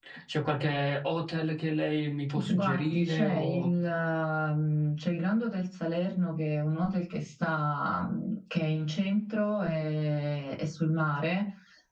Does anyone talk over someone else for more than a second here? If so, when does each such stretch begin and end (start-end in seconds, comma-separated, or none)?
2.4-3.7